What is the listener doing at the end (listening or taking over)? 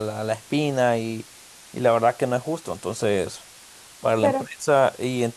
listening